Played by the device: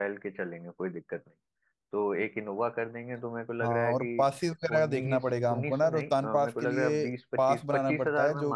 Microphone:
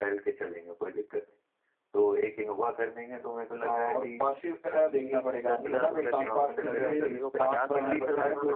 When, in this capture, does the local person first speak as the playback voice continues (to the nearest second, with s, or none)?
5 s